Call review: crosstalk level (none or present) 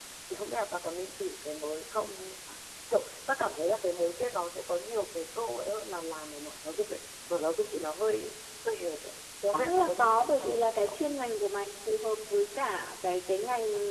present